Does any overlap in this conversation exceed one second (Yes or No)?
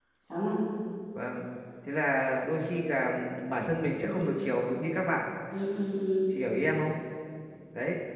No